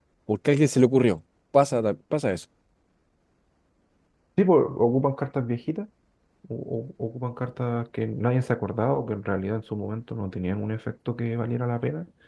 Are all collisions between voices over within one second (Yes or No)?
Yes